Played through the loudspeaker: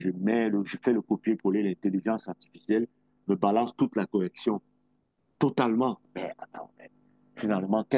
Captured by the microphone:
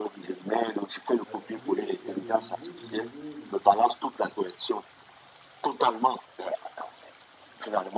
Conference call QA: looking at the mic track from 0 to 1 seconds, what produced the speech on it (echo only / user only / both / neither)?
echo only